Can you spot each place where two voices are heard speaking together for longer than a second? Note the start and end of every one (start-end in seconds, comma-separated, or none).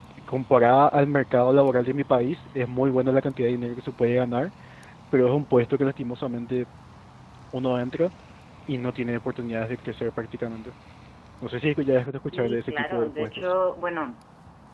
12.3-13.5